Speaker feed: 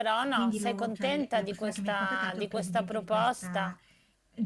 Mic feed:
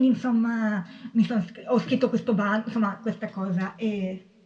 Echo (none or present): none